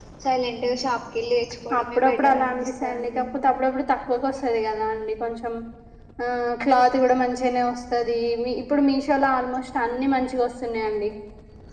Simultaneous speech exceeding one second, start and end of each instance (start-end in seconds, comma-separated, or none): 1.8-3.2